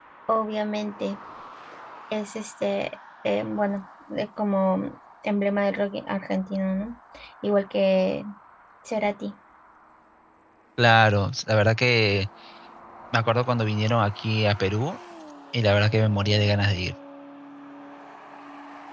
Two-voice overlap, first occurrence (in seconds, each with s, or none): none